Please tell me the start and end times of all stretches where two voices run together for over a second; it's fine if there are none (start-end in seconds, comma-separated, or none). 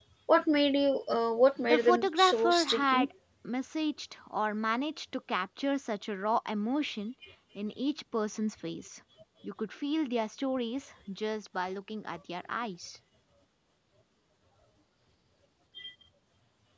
1.6-3.1